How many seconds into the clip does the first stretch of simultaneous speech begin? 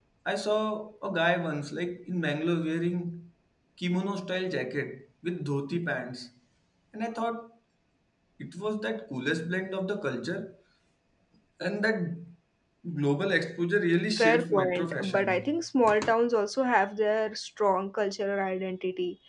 14 s

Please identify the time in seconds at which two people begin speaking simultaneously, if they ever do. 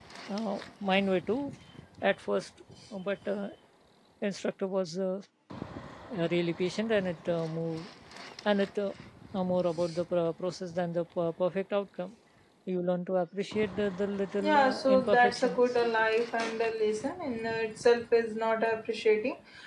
14 s

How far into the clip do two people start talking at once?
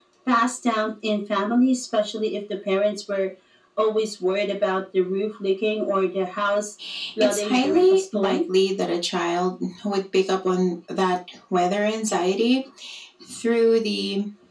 7 s

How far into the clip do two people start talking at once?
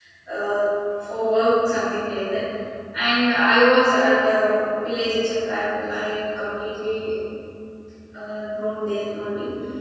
none

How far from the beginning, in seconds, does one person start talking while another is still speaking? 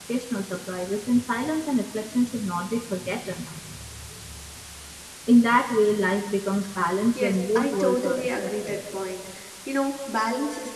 7 s

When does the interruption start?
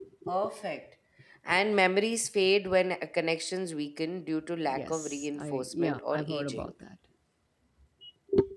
5 s

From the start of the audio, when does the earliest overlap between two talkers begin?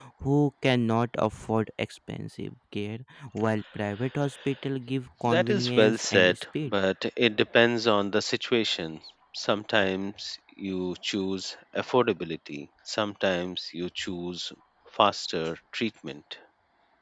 5 s

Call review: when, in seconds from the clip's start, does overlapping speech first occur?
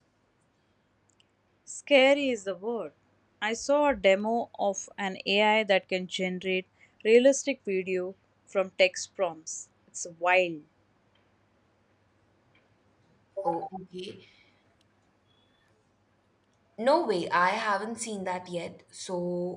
none

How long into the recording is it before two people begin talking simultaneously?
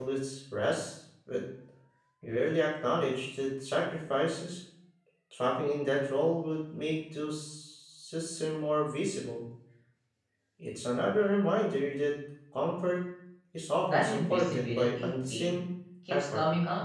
14 s

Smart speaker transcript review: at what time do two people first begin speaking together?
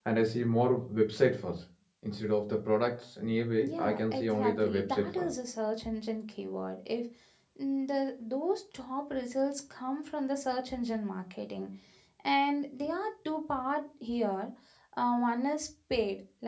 4 s

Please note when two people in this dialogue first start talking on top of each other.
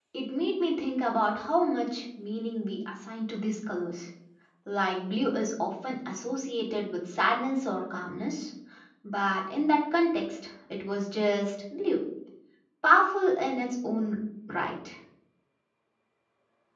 none

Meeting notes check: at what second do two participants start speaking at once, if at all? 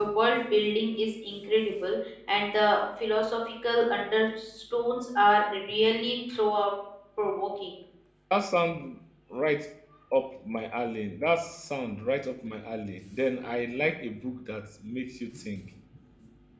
none

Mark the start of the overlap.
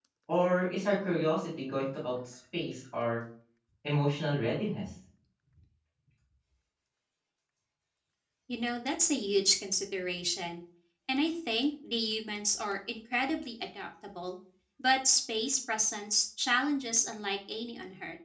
none

